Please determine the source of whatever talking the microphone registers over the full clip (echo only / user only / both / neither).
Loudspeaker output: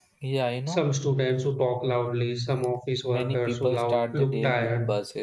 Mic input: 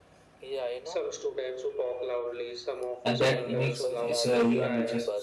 both